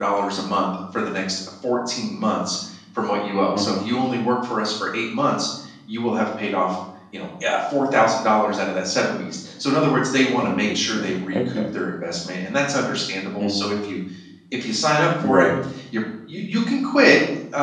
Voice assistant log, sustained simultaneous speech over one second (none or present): present